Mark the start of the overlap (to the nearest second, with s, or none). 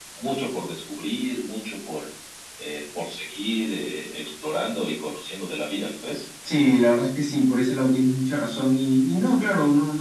none